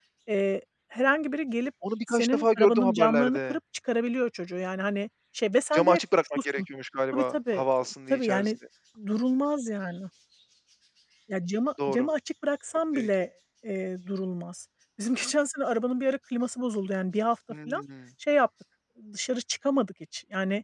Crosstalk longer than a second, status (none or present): present